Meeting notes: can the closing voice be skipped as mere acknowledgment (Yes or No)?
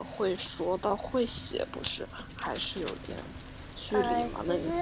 No